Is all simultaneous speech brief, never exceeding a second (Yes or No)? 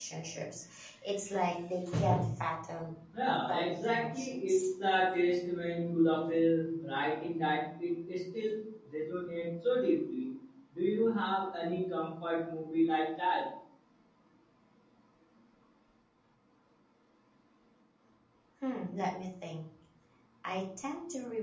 No